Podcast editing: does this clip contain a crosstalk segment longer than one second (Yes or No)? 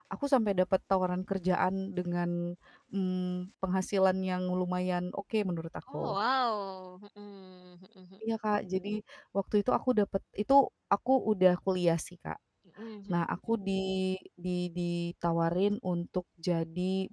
No